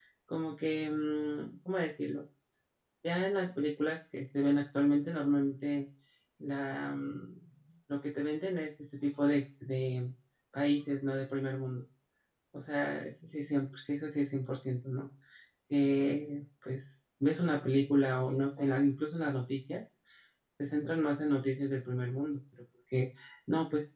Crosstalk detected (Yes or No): No